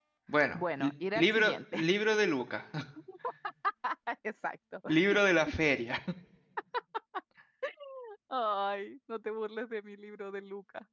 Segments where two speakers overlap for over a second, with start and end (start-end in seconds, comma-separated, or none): 0.5-1.8